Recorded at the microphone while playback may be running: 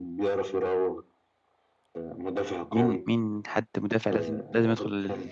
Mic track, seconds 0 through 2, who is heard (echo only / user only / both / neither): echo only